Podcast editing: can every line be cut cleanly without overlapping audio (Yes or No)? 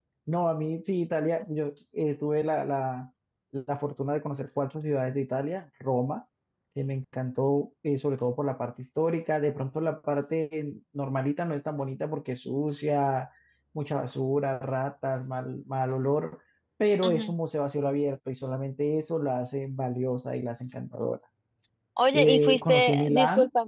No